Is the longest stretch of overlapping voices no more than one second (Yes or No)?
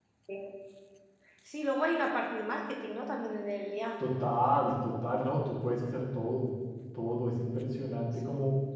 Yes